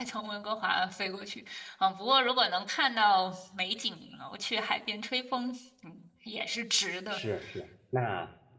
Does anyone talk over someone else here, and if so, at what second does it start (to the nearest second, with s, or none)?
none